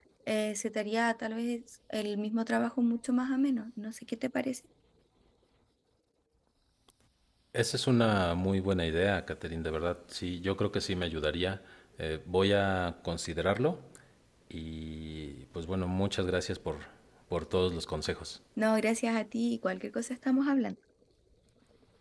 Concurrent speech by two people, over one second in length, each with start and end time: none

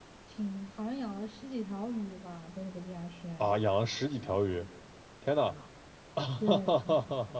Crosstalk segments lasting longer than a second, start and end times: none

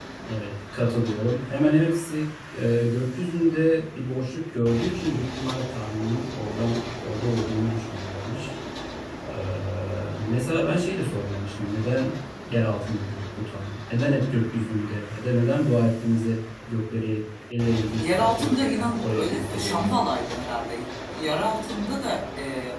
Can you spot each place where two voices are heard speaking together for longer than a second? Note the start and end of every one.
18.0-19.9

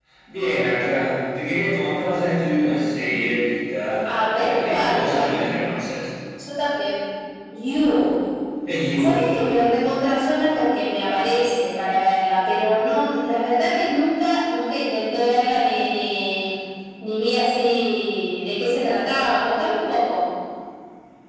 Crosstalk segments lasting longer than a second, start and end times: 4.0-5.4

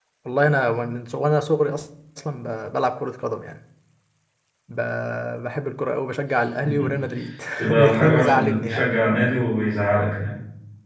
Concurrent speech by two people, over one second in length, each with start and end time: 7.6-8.9

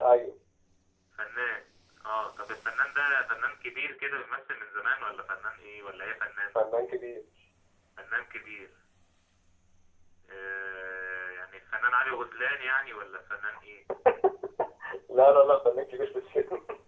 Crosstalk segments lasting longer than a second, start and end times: none

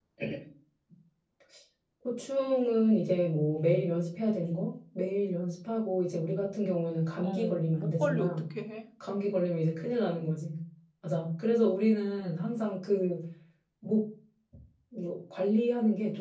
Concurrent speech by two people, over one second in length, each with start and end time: 7.2-8.4

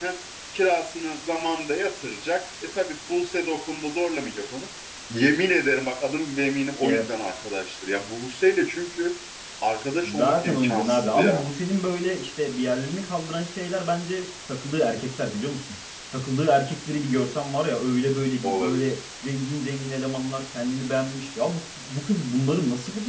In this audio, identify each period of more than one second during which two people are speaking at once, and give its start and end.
10.0-11.4

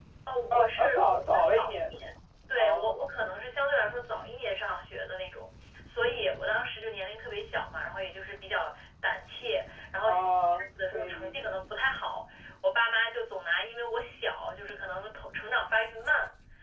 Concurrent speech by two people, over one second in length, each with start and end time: 0.5-1.9, 10.0-11.4

